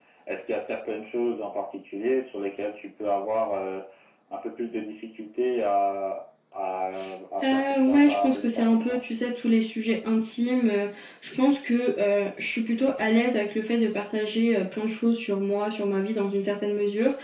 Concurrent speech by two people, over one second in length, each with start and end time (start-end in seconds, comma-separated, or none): 7.4-9.0